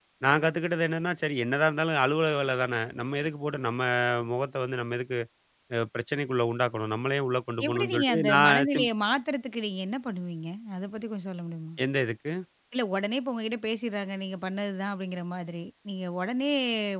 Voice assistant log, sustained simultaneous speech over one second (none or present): present